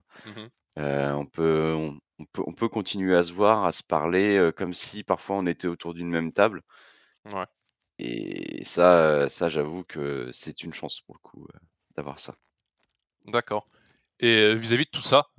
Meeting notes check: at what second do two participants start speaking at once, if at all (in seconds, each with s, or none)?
none